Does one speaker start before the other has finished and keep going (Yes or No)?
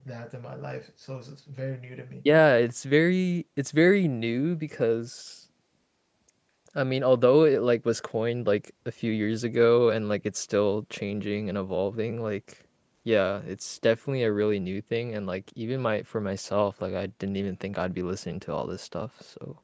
No